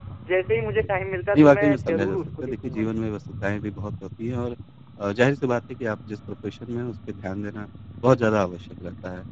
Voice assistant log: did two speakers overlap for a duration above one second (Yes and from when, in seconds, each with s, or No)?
Yes, from 1.3 s